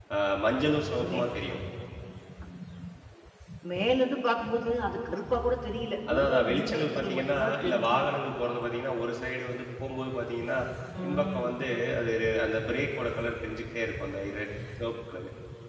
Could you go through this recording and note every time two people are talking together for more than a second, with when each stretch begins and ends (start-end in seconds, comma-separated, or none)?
6.1-8.1